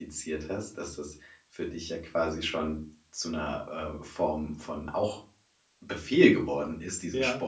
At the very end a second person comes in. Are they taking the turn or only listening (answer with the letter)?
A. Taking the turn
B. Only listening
B